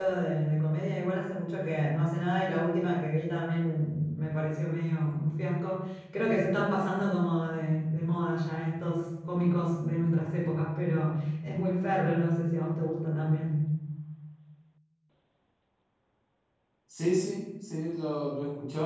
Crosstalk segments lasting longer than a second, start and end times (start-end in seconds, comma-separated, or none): none